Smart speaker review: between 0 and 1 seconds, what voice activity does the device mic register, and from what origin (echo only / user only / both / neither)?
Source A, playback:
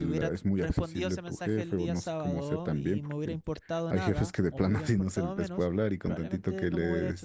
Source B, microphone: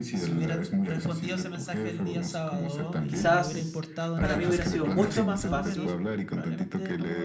echo only